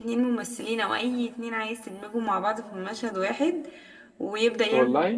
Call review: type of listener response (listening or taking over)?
listening